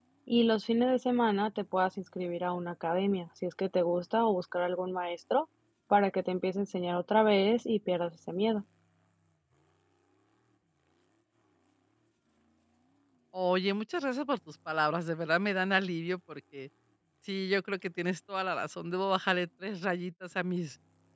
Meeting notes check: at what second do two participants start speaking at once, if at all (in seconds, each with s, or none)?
none